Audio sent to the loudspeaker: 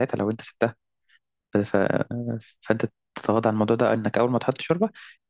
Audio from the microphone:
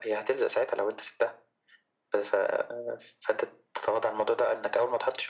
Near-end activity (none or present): none